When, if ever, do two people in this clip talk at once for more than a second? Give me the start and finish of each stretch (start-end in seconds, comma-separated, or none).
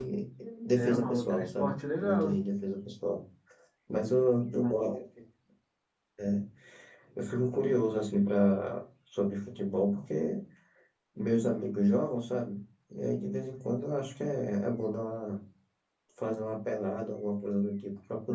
0.7-2.4